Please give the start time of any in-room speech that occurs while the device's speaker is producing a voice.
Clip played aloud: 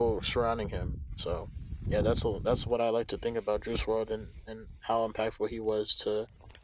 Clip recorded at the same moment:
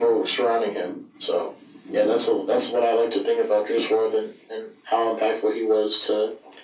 none

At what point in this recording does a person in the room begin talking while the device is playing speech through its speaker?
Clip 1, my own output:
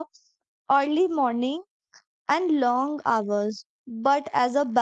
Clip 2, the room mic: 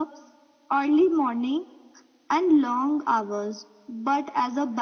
none

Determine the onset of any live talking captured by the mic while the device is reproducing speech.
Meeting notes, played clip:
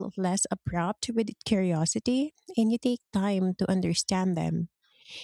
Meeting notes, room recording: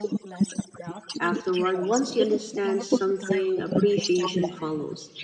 1 s

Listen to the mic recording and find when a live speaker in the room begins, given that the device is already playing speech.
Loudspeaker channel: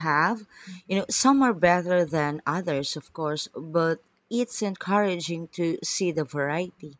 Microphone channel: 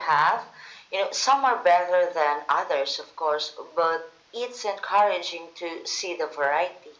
none

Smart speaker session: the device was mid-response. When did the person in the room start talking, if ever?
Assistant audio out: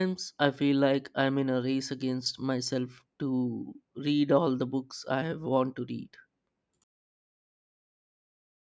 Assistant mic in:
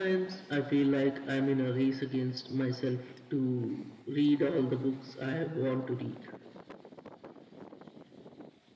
none

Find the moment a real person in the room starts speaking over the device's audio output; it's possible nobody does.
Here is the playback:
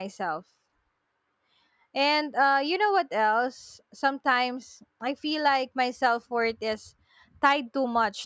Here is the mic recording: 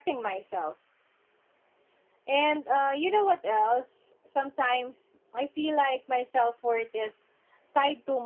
none

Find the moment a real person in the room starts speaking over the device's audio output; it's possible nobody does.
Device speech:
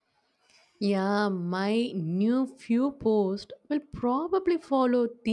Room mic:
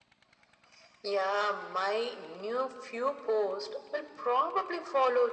none

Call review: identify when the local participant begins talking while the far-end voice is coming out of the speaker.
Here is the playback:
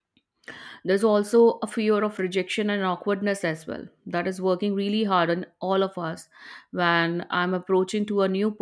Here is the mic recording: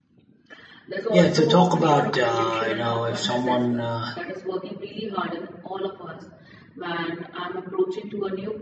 1 s

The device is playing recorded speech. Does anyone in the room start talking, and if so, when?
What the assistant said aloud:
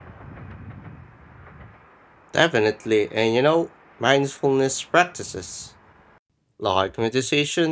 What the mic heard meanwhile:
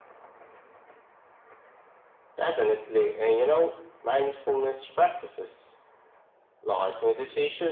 none

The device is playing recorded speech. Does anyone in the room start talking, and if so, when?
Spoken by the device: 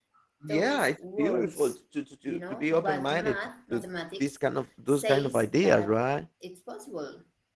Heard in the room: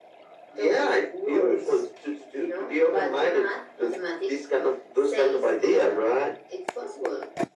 none

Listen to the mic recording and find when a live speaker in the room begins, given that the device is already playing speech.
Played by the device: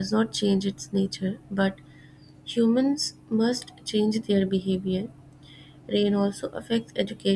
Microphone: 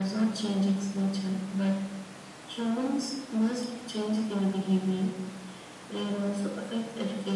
none

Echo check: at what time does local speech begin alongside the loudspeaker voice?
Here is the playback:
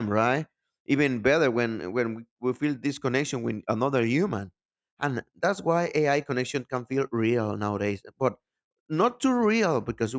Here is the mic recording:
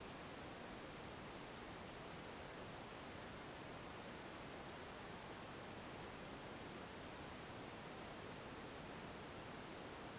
none

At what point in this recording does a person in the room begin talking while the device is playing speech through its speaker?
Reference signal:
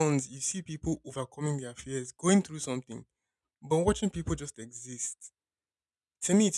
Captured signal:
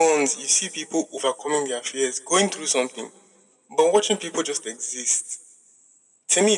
none

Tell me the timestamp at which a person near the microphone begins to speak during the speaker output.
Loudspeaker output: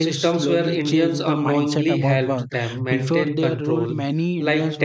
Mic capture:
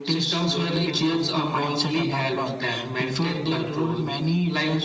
none

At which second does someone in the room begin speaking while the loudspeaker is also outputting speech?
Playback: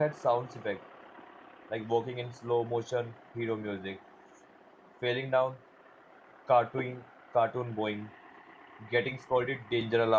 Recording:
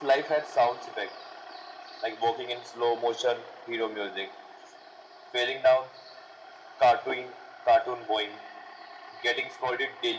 none

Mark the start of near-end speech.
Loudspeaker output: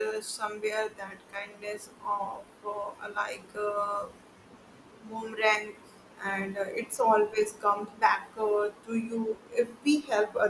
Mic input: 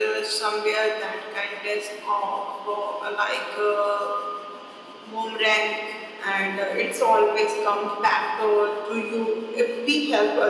none

